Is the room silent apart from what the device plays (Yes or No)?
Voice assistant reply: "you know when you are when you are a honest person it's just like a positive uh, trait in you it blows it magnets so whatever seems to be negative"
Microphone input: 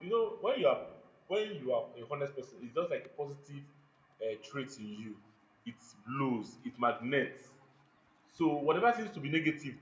Yes